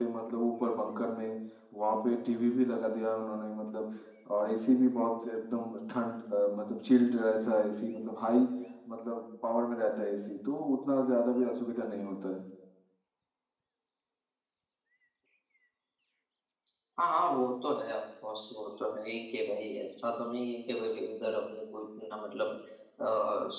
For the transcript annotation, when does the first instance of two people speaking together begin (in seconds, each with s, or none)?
none